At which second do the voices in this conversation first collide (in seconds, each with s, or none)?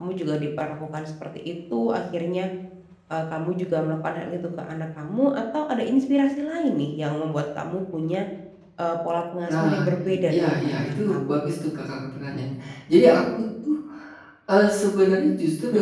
9.5 s